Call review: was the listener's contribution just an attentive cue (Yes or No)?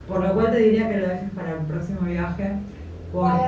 No